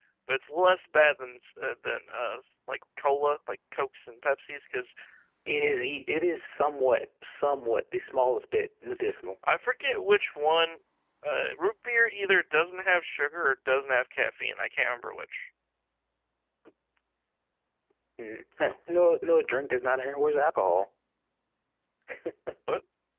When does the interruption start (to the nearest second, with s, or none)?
none